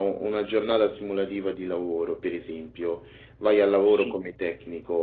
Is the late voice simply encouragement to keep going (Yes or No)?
Yes